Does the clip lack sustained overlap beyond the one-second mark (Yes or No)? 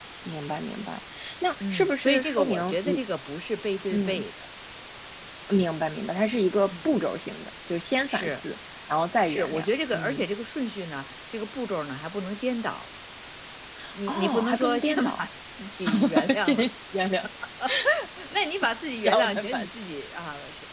No